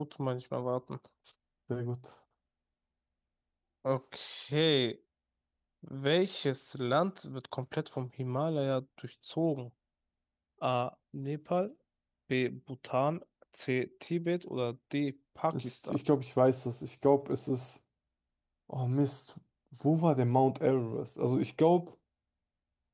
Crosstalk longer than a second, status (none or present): none